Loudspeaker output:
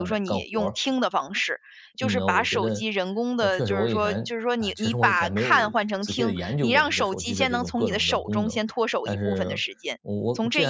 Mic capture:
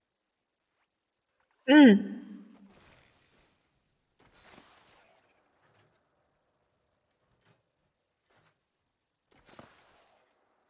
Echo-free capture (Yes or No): Yes